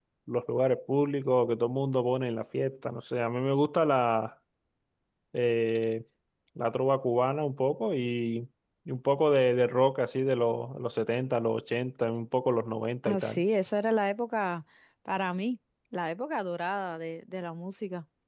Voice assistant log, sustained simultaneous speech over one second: none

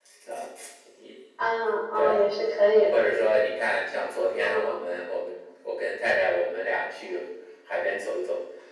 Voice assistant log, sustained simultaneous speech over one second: none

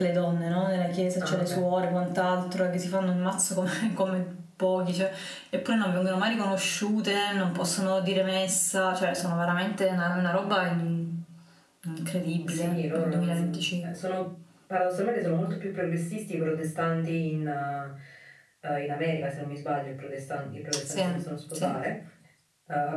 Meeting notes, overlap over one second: present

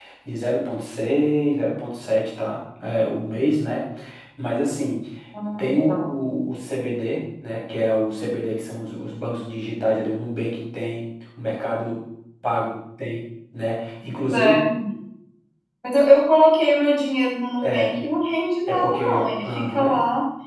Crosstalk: present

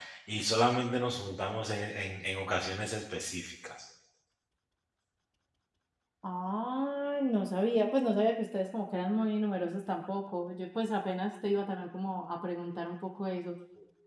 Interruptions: none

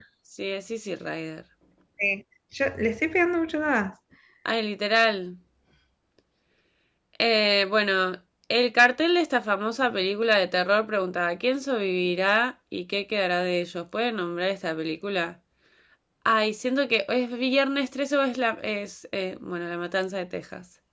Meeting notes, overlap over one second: none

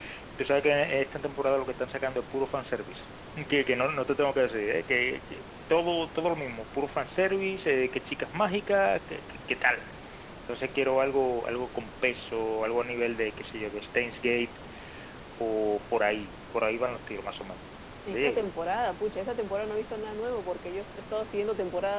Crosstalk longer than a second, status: none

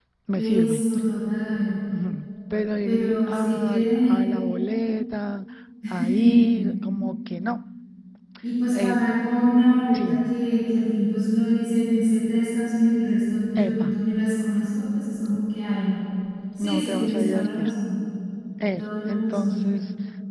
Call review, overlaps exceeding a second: present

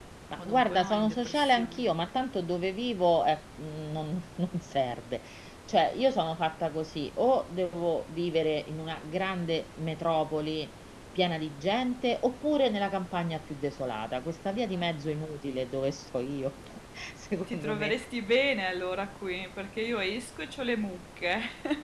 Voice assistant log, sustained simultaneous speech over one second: present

